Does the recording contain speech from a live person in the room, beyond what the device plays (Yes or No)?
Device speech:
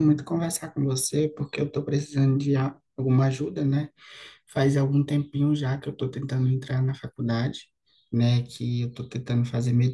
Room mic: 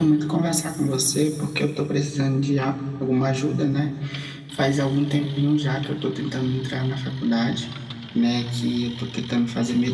No